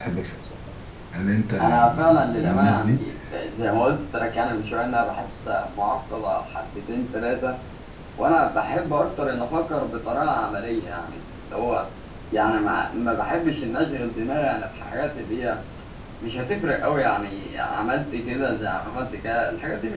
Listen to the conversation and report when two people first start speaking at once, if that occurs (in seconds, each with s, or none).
1.6 s